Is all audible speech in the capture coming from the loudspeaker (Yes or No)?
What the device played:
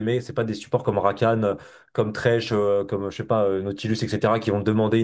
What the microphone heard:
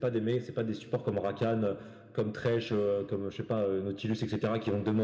Yes